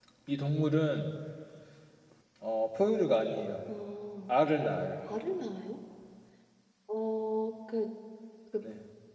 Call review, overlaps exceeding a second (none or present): none